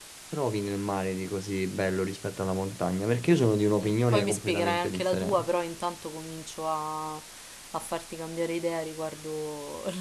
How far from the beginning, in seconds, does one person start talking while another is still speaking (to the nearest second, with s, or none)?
4 s